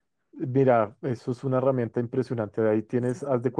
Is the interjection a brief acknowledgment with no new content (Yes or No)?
Yes